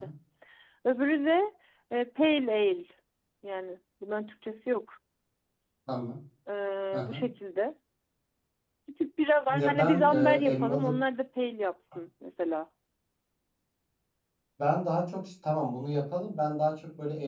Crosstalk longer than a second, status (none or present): present